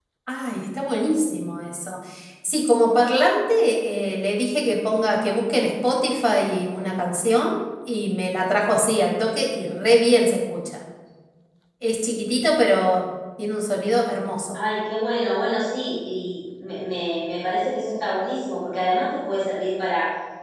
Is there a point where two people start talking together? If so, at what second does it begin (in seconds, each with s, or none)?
none